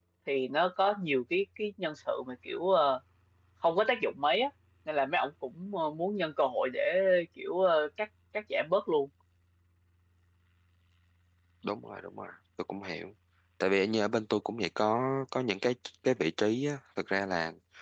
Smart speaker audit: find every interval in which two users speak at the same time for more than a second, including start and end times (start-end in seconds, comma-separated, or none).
none